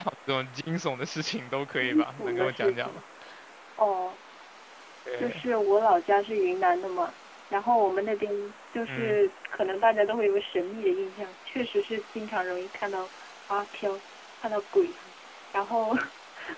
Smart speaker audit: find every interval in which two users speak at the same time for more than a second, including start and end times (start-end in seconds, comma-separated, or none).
1.8-3.0